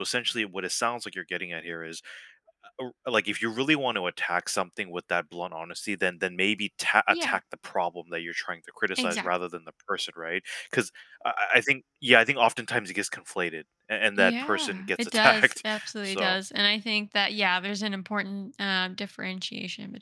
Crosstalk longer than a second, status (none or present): present